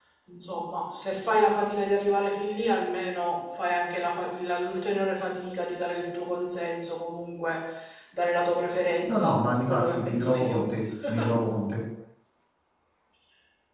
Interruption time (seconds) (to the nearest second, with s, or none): 9 s